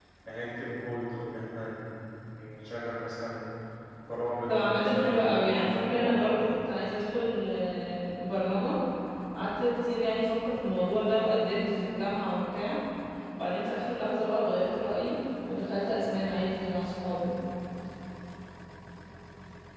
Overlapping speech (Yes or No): Yes